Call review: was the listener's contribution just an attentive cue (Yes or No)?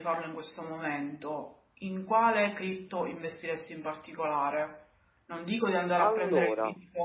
Yes